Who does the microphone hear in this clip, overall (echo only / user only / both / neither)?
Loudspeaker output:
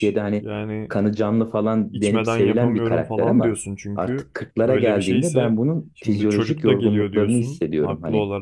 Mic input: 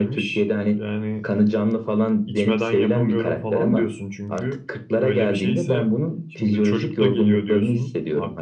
echo only